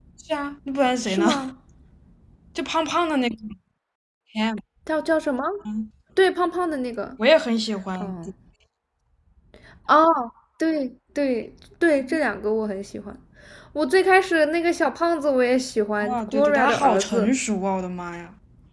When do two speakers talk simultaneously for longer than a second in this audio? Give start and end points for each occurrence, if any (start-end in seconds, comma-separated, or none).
16.1-17.3